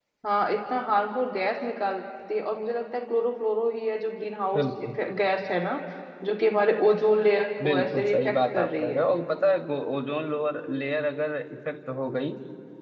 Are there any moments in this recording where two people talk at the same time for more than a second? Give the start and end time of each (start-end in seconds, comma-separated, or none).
7.6-9.1